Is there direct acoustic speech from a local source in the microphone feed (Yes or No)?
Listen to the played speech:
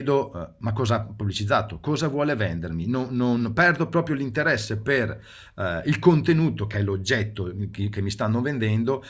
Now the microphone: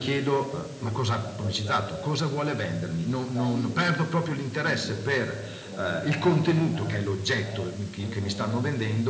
Yes